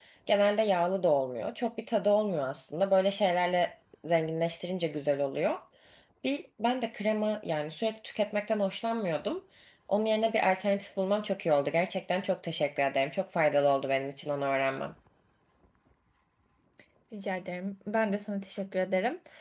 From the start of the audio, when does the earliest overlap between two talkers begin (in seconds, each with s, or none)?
none